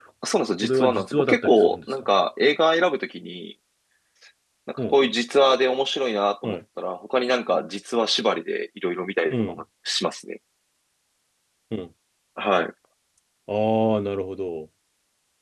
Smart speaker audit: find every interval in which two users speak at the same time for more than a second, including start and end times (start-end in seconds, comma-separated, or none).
0.6-2.0